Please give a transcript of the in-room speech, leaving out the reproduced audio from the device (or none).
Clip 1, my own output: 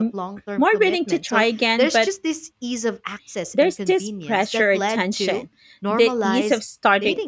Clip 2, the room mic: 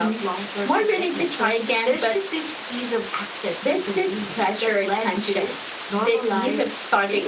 none